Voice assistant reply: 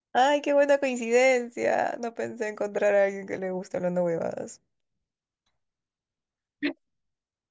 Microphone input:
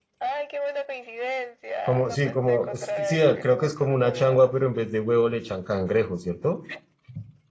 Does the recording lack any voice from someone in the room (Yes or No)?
No